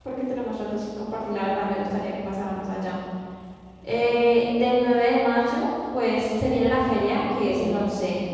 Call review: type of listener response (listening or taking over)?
listening